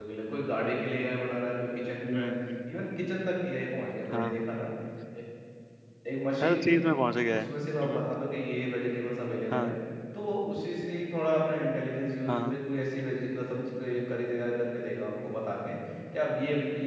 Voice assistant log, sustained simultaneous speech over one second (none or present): none